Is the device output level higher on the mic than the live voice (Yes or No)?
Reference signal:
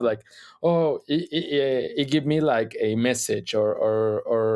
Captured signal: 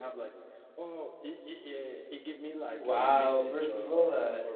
No